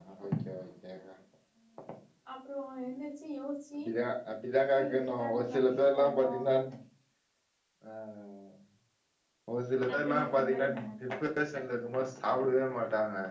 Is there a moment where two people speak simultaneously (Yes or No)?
Yes